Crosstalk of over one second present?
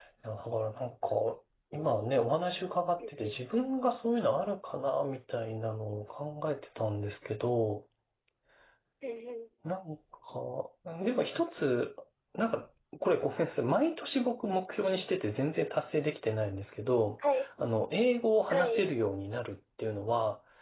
No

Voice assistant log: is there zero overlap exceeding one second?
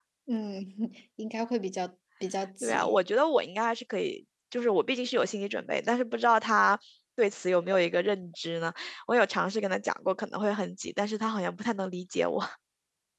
Yes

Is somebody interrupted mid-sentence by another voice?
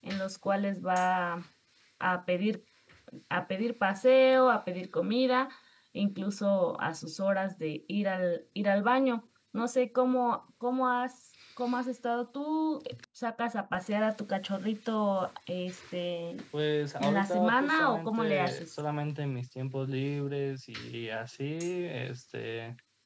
Yes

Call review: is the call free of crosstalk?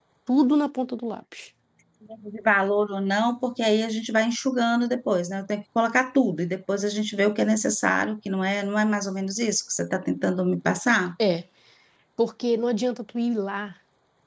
Yes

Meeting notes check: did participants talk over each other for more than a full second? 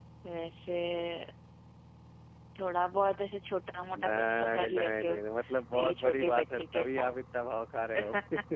Yes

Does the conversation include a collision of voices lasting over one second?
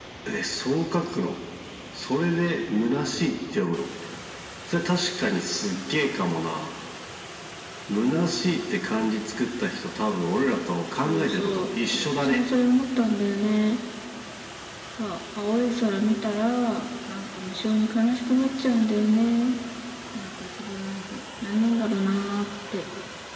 Yes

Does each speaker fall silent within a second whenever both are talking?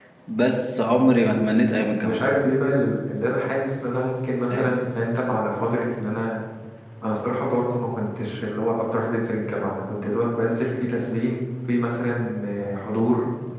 Yes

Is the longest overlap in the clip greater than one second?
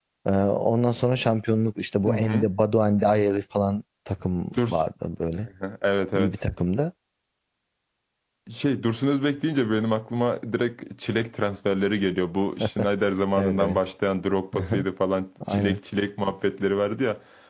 No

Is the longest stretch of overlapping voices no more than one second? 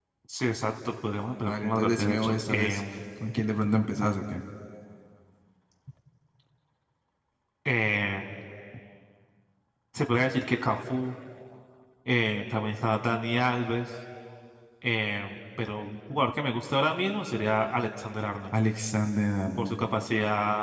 No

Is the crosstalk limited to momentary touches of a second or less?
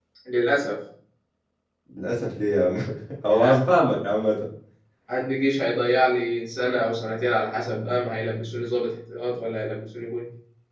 Yes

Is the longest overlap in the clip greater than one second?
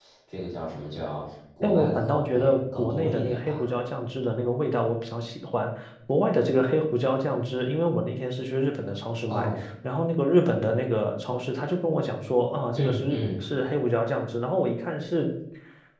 Yes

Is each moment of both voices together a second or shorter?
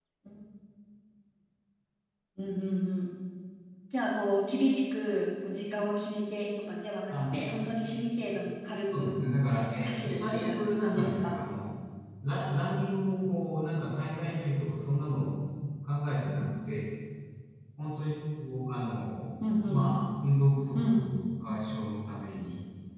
No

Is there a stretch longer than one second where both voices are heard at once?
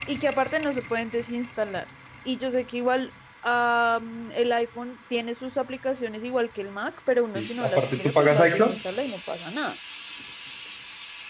Yes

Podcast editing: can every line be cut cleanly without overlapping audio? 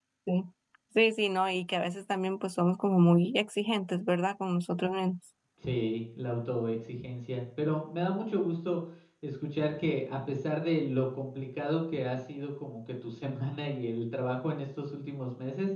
Yes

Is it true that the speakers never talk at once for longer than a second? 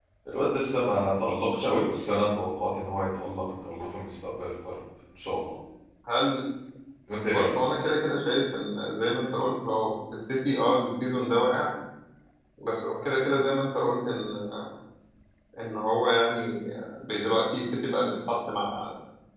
Yes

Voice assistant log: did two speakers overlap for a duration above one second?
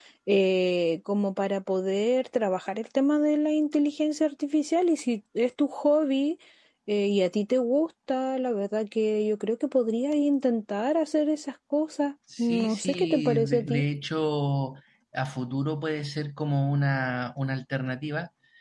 Yes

